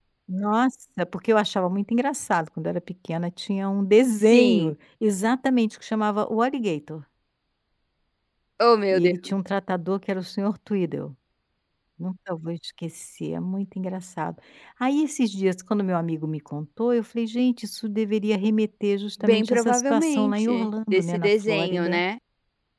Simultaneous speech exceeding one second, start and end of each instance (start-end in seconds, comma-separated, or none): 19.2-22.0